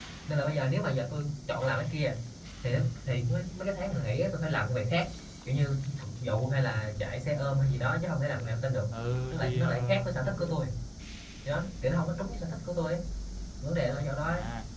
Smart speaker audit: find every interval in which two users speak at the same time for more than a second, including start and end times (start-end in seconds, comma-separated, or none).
9.3-10.6